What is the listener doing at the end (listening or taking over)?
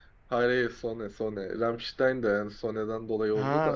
taking over